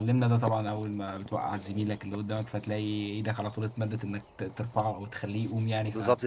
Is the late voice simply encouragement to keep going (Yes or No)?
No